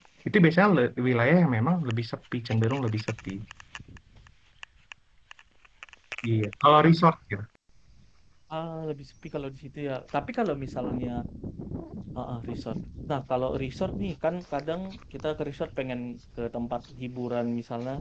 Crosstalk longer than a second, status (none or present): none